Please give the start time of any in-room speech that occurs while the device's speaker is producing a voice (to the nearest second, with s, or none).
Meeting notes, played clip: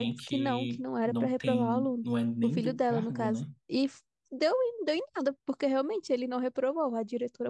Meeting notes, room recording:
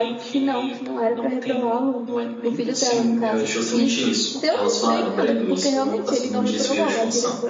3 s